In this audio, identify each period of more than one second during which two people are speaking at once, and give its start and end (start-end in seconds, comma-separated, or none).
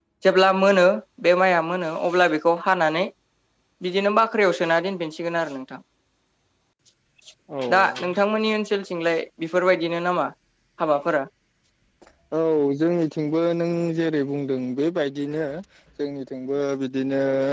none